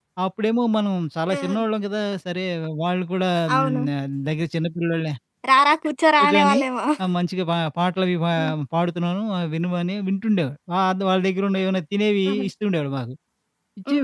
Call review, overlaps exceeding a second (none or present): none